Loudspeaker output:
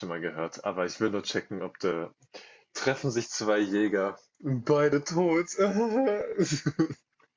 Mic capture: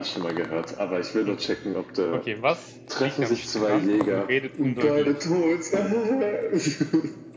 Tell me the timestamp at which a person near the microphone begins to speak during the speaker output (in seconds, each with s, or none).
1.3 s